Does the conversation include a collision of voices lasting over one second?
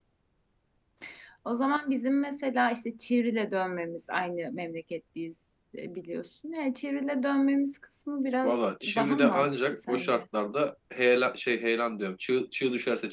Yes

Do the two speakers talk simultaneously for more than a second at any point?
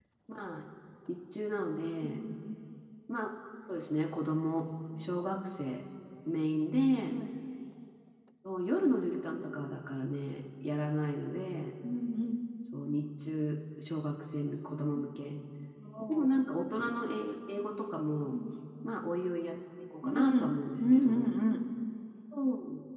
No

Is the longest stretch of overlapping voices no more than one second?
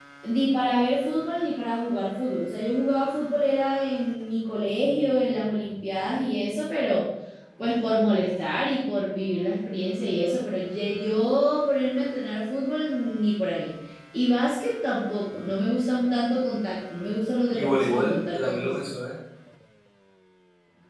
No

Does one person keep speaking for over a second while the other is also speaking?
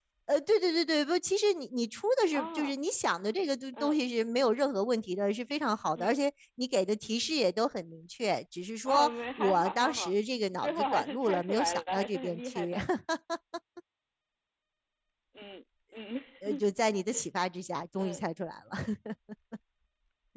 Yes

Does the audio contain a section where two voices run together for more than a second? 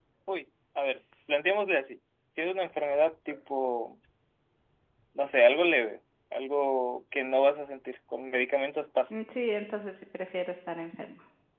No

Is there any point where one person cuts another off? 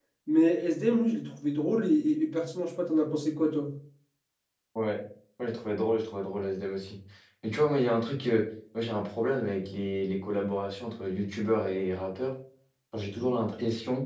No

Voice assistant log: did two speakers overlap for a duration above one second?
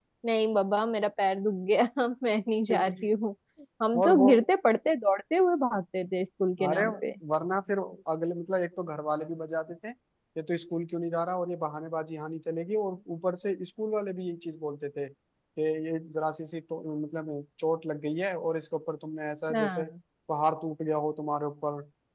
No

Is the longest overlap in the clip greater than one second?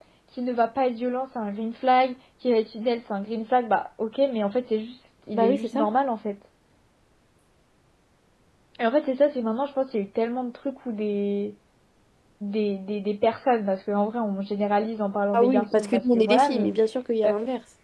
Yes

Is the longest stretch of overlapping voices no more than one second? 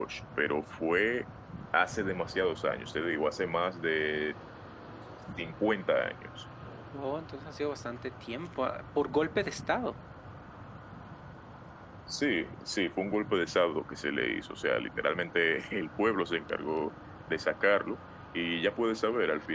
Yes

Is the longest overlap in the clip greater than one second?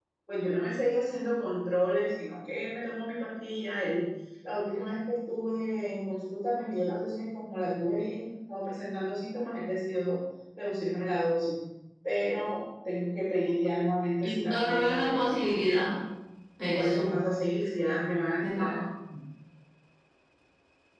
Yes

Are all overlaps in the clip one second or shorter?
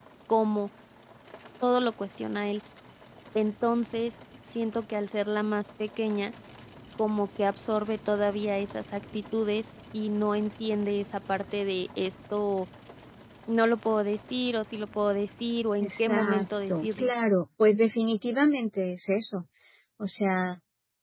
No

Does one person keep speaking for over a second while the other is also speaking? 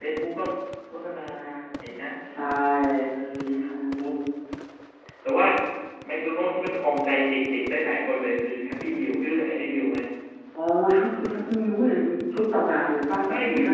No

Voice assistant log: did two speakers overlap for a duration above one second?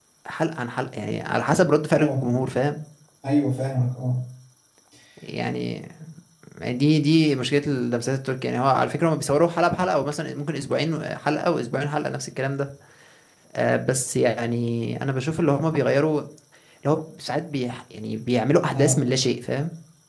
No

